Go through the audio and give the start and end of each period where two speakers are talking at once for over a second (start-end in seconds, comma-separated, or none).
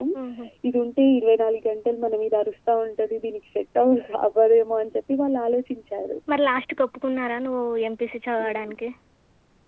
none